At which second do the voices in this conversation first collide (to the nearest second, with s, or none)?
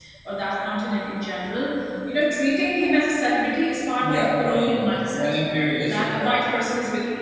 4 s